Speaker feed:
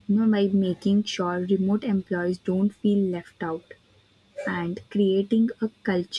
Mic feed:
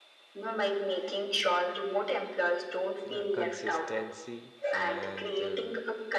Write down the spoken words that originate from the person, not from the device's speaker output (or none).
uh, consistency and uh,